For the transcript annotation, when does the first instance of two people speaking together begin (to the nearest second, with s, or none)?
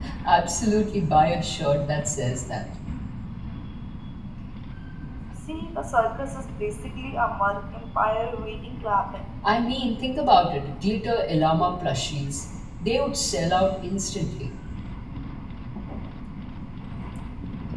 none